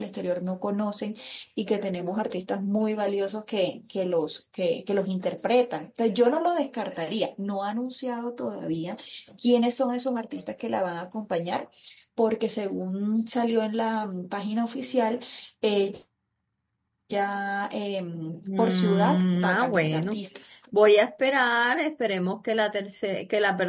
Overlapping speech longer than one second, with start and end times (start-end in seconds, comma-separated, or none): 18.6-20.2